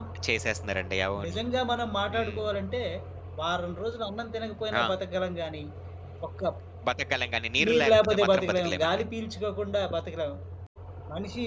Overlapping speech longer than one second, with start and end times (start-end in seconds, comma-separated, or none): 7.7-9.0